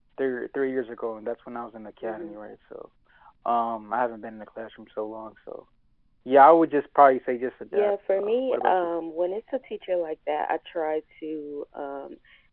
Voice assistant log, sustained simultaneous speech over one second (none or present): present